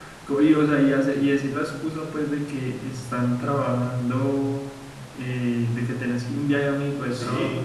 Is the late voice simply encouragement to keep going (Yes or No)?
No